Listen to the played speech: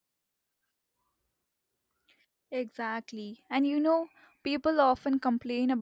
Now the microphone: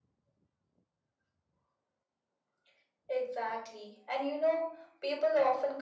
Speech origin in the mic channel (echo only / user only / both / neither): echo only